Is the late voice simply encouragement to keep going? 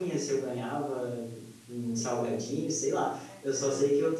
Yes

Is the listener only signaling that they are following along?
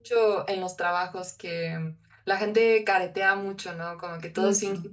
Yes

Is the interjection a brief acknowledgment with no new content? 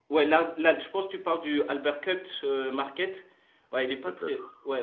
Yes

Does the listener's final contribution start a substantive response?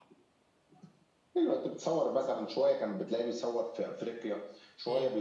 No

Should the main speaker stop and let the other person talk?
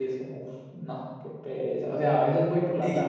Yes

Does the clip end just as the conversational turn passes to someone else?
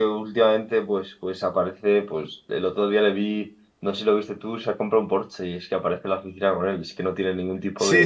Yes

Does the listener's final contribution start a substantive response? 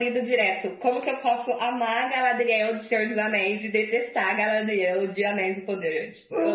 Yes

